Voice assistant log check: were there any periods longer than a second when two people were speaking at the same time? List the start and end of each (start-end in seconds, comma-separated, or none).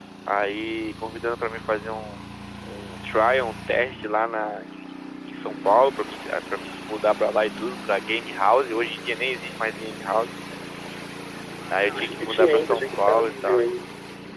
11.7-13.6